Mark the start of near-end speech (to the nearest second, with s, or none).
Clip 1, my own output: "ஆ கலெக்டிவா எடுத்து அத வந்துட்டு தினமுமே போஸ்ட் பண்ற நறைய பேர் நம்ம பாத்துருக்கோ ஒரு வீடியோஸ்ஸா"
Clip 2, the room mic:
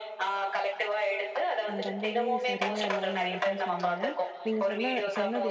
2 s